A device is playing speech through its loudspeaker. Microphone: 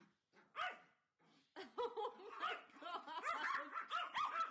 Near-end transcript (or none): none